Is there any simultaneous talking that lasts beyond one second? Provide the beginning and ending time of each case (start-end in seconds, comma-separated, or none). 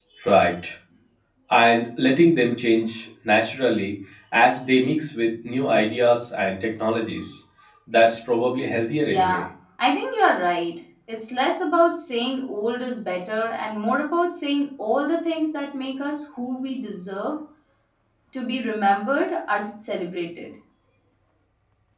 none